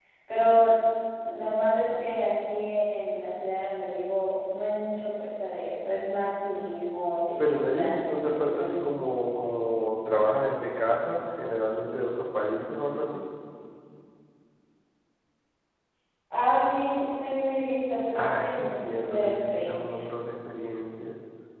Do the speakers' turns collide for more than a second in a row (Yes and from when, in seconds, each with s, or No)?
Yes, from 7.4 s